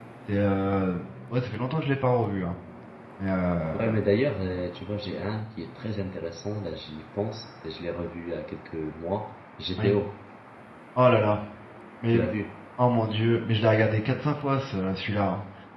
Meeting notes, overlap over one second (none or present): none